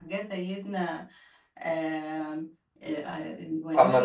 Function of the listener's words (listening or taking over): taking over